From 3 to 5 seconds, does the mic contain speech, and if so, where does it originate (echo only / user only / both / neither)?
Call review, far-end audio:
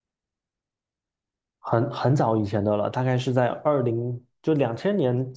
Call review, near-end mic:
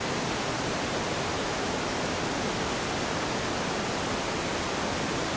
neither